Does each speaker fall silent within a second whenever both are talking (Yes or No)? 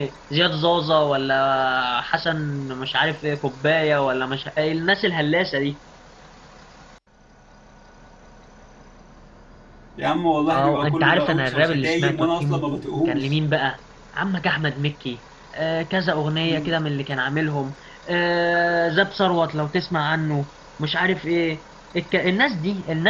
No